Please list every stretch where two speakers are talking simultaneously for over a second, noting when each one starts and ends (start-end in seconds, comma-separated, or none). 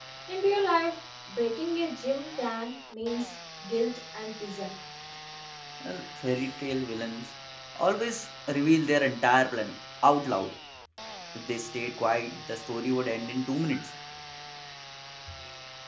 none